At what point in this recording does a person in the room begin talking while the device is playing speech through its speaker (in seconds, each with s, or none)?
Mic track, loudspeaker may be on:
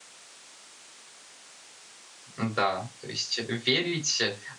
2.4 s